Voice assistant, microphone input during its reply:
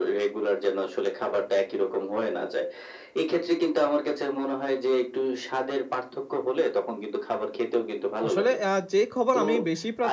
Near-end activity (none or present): present